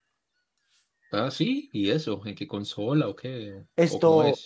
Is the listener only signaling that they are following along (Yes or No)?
No